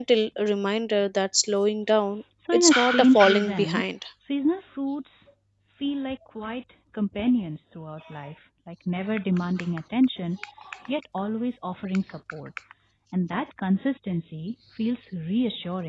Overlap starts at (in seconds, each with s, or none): 2.4 s